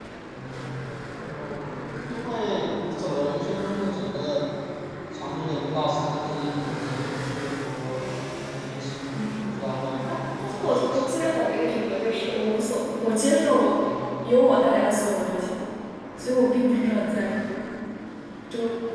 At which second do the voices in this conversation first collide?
9.3 s

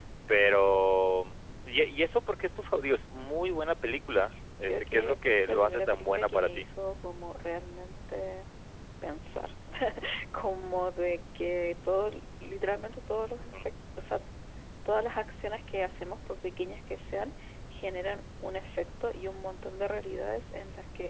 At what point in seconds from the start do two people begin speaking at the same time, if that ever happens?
4.6 s

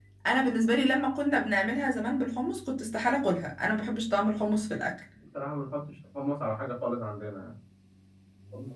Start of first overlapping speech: none

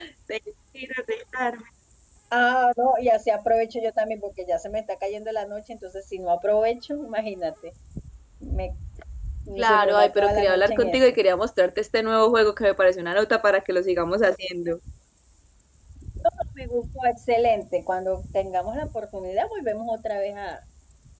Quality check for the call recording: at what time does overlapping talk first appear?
9.6 s

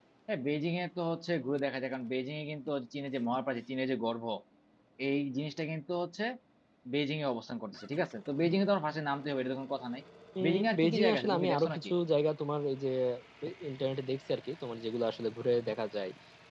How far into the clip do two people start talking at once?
10.4 s

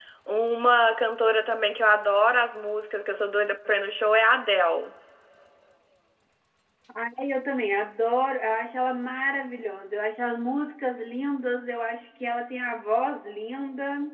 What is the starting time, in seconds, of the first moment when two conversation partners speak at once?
none

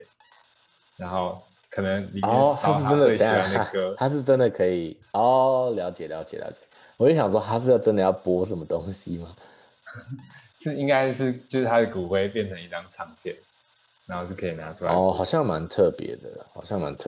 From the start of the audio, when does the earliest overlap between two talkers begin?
2.2 s

